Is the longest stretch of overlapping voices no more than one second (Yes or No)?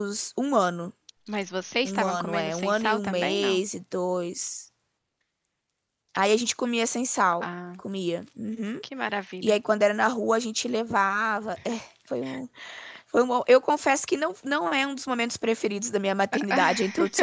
No